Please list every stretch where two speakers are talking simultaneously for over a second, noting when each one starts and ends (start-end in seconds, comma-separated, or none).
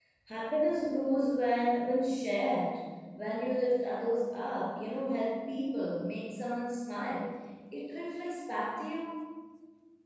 none